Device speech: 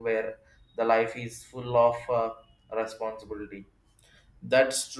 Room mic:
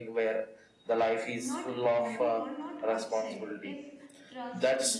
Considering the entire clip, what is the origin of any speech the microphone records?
both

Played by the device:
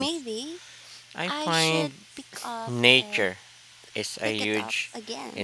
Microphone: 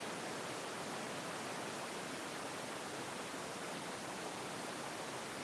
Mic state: neither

